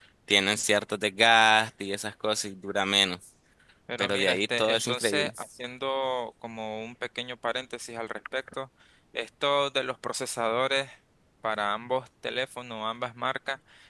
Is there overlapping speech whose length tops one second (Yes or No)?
Yes